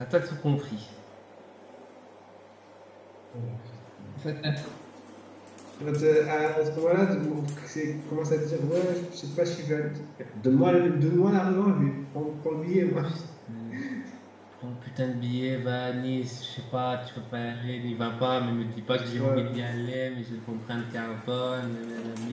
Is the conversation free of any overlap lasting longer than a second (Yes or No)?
Yes